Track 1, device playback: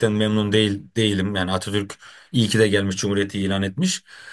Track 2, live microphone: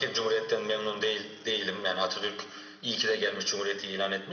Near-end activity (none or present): none